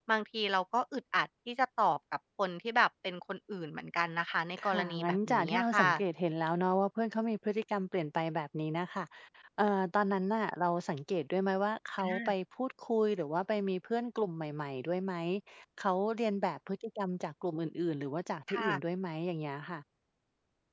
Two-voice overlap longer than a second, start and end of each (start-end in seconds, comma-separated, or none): 4.6-5.9